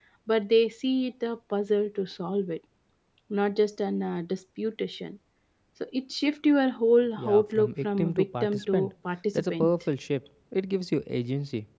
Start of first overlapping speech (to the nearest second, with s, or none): 7 s